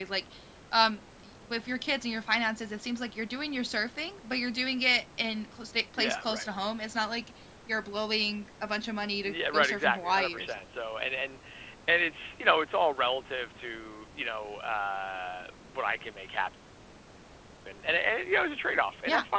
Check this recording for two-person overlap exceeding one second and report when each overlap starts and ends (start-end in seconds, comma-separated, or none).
9.2-10.6